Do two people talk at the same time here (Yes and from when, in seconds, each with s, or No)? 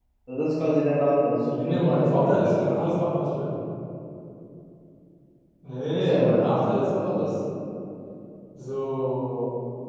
Yes, from 1.5 s